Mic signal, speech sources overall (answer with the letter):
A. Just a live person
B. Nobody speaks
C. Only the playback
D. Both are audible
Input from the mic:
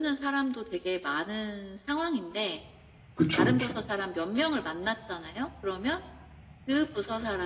D